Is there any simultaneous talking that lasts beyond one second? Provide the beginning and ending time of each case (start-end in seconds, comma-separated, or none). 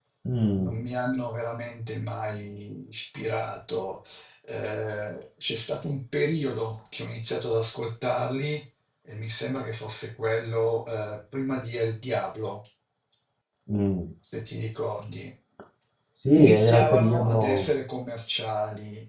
16.3-17.7